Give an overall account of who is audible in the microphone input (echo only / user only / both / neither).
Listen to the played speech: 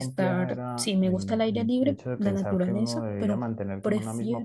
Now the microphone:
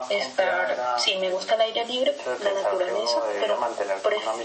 echo only